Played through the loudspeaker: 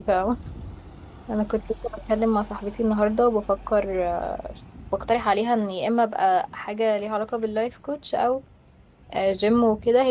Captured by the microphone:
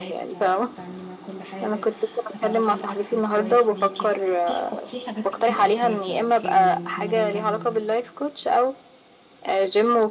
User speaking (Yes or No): Yes